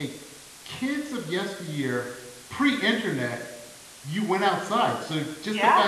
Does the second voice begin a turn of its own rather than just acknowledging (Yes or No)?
No